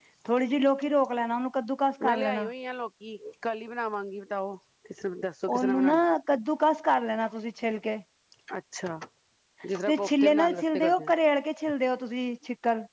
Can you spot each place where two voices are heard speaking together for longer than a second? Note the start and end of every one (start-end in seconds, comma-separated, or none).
9.9-11.1